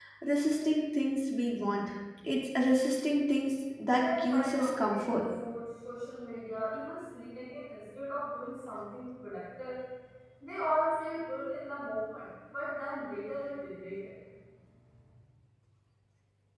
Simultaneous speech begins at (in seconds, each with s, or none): 4.0 s